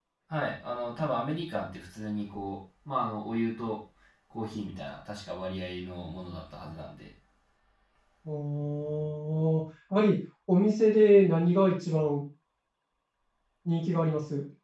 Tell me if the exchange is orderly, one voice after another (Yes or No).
Yes